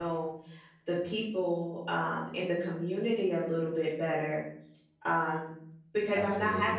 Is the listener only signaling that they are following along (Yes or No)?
Yes